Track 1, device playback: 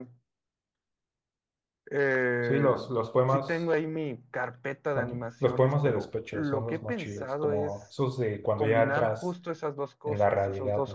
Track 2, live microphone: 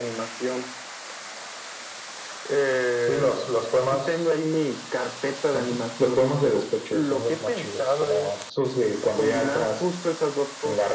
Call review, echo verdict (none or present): present